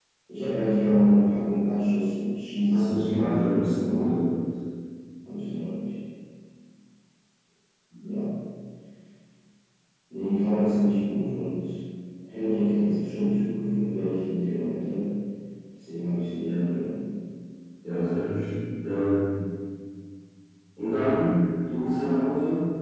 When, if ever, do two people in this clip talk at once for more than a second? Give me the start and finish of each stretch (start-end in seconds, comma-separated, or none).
2.7-4.1